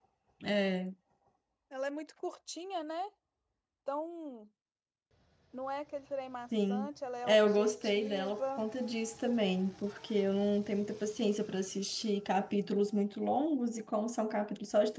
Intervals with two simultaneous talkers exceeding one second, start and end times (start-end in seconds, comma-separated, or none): 7.3-8.6